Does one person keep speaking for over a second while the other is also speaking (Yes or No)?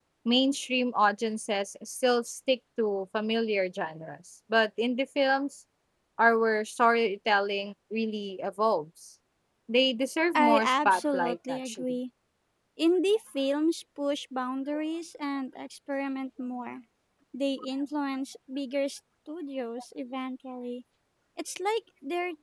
Yes